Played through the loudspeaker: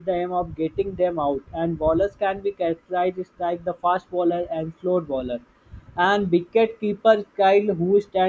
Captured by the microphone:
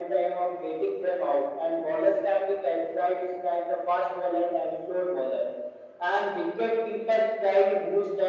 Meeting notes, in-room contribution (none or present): none